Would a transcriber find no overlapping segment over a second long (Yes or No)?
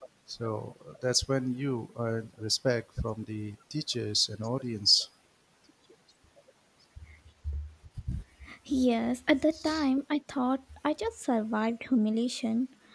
Yes